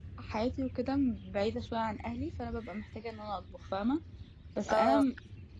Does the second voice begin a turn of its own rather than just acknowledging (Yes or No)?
No